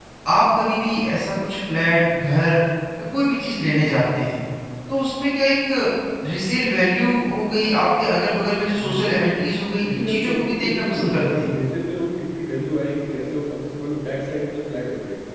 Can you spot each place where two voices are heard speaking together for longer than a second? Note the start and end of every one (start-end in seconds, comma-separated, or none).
9.9-11.5